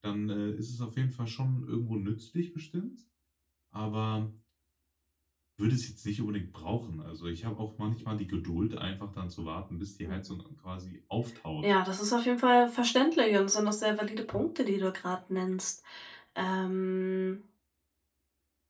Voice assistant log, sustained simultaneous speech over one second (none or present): none